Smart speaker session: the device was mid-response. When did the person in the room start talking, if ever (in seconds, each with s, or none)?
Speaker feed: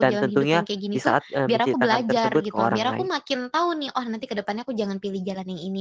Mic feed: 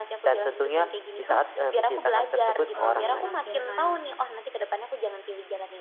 2.7 s